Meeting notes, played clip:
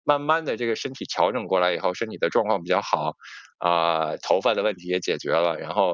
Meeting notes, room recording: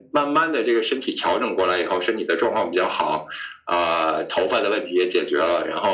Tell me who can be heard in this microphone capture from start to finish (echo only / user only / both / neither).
echo only